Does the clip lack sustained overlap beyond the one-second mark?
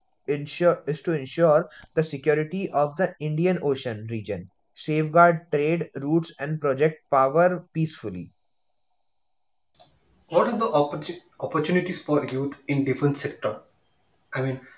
Yes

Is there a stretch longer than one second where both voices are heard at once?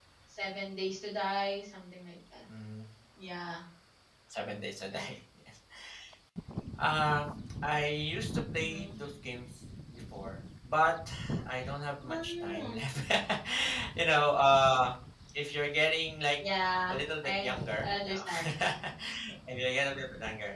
Yes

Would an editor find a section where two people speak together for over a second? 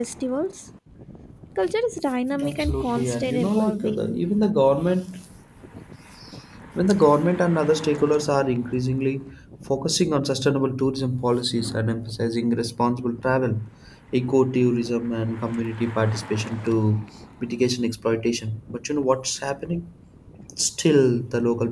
Yes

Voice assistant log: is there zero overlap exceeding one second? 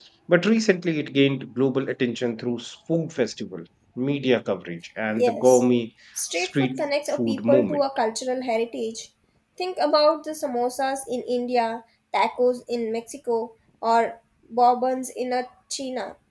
No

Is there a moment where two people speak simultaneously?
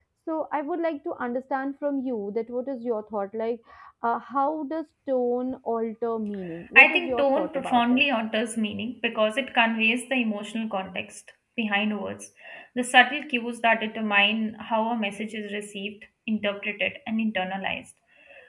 Yes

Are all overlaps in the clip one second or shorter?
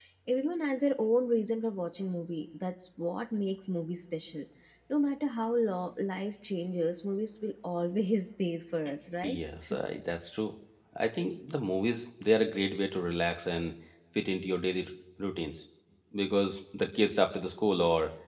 Yes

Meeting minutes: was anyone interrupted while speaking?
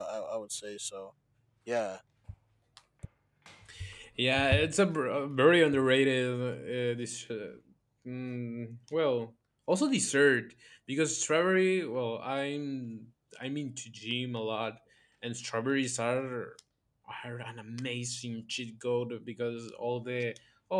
No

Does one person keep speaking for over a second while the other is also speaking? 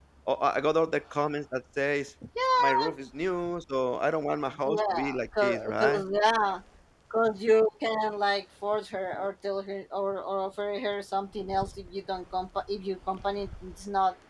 Yes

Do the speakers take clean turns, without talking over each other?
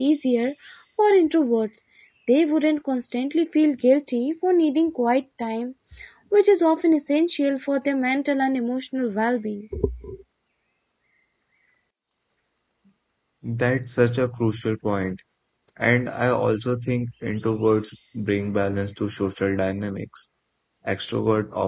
Yes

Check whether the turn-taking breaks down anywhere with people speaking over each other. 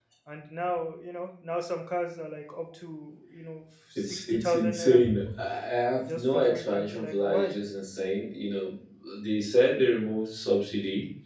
Yes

